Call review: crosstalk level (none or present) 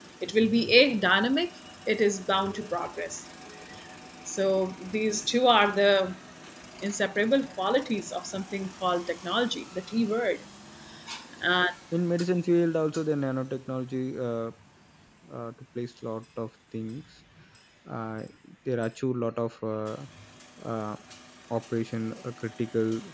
none